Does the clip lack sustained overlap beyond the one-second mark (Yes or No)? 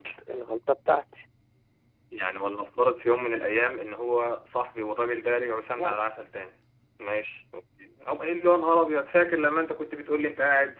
Yes